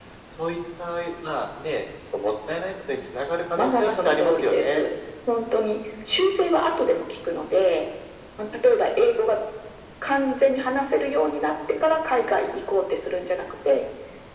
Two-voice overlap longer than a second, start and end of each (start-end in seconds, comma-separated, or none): 3.6-4.8